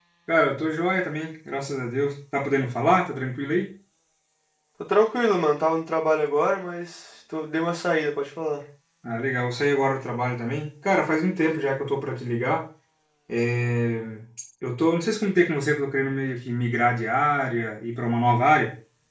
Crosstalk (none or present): none